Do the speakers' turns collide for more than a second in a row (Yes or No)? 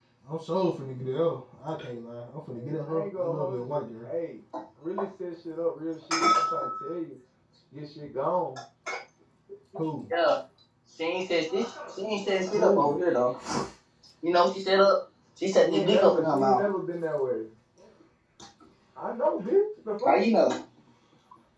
Yes